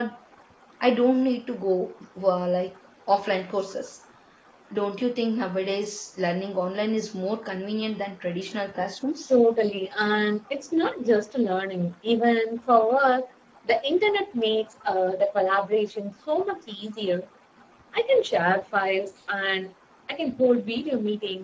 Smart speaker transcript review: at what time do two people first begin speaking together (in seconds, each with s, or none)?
none